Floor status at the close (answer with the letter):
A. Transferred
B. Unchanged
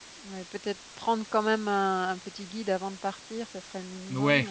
A